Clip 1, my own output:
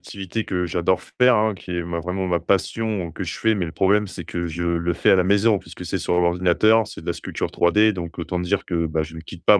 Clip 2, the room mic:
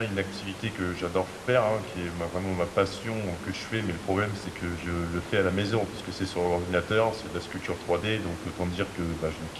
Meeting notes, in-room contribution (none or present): none